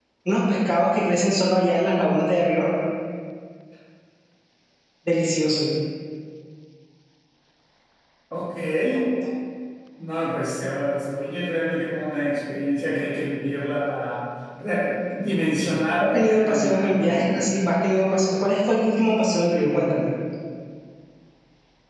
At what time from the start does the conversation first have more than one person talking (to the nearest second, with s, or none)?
16 s